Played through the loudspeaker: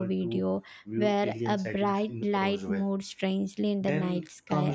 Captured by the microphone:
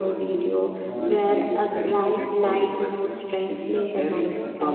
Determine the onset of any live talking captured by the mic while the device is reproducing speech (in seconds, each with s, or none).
0.8 s